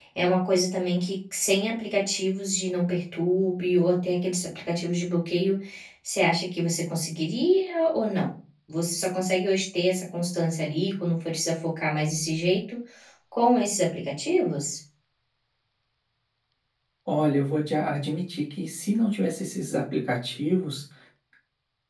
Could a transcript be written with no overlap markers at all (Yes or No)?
Yes